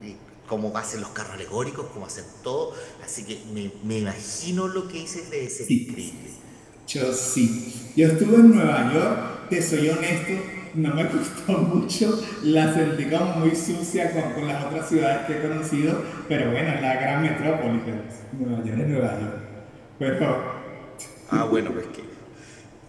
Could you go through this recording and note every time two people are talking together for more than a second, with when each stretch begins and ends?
none

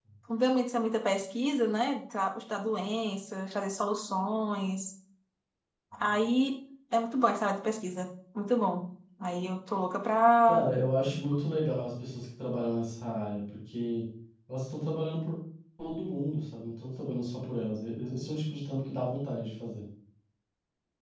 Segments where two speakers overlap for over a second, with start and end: none

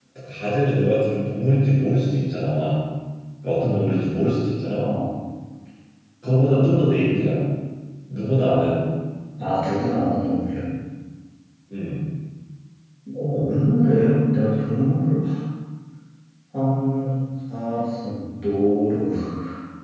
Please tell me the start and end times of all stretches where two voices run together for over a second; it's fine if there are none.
none

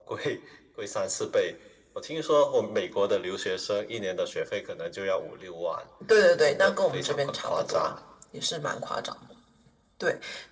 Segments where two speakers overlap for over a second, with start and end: 6.3-7.8

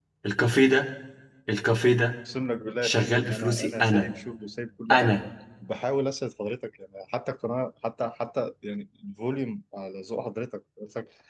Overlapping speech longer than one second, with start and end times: 2.8-4.1

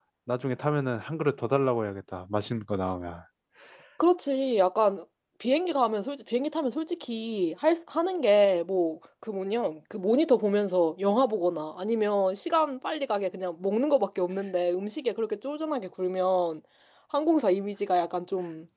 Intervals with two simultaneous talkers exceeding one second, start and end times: none

